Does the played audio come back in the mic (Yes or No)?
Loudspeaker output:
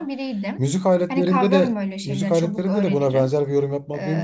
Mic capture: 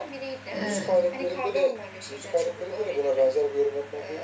Yes